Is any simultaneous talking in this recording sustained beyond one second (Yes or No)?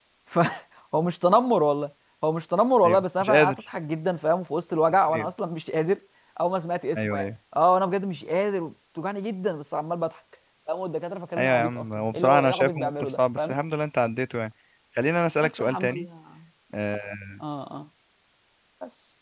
Yes